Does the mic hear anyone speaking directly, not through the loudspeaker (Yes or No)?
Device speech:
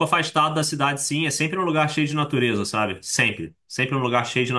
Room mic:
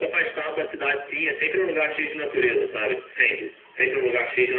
No